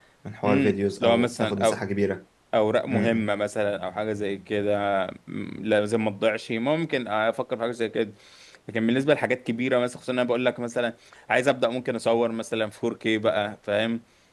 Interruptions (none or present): present